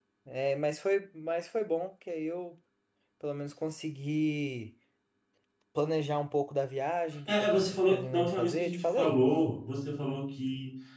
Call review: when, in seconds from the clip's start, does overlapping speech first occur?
7.3 s

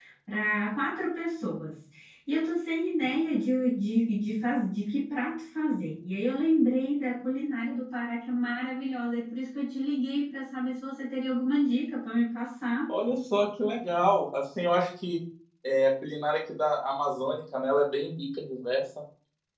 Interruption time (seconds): none

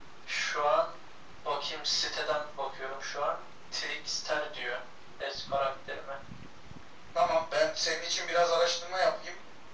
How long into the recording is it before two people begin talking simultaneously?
none

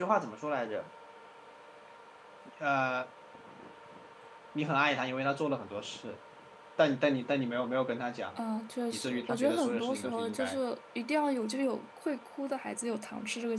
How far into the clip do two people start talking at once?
8.9 s

